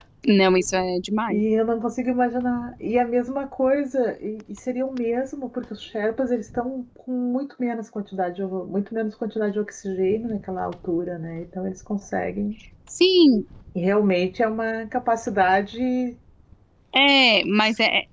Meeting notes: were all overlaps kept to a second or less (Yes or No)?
Yes